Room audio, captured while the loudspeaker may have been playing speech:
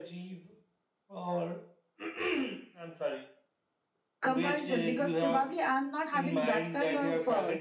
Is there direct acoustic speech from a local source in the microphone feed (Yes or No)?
Yes